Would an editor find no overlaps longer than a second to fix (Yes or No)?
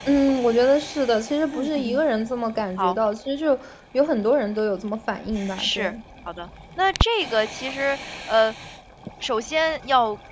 Yes